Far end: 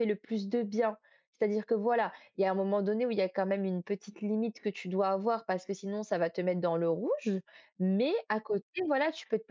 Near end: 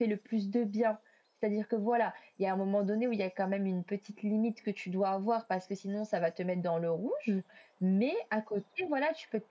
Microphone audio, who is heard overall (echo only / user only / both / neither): echo only